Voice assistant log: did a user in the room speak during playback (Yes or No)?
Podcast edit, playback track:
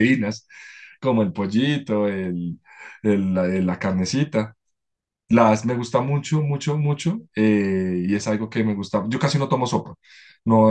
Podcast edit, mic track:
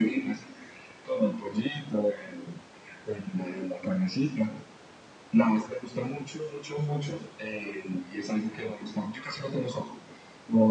No